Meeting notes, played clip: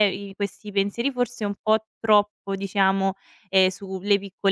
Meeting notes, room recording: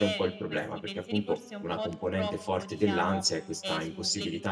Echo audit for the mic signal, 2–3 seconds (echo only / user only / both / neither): both